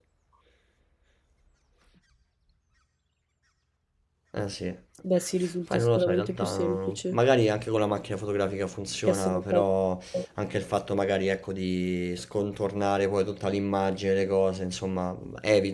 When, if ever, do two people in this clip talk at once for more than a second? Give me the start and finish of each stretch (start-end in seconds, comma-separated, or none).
5.7-7.2